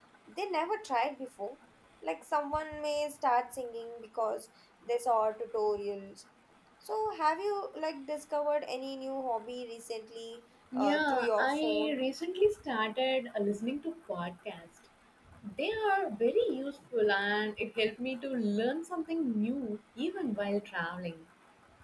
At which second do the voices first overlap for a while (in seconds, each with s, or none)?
10.7 s